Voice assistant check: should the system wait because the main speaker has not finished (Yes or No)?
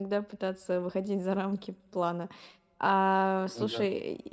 Yes